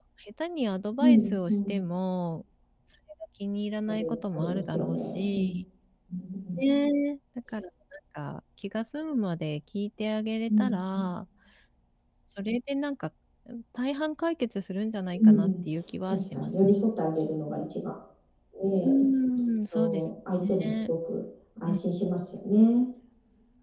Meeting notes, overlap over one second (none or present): present